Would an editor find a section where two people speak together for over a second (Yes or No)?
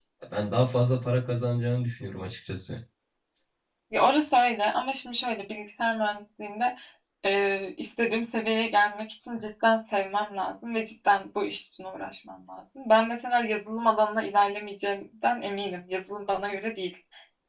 No